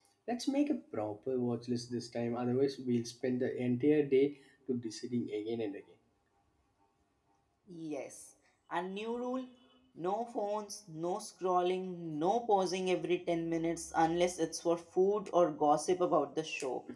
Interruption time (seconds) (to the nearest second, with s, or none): none